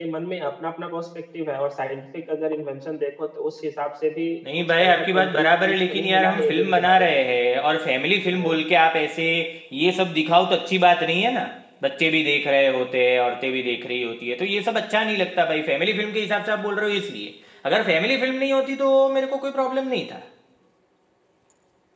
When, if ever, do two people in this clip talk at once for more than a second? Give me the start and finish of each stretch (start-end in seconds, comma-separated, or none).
4.6-7.2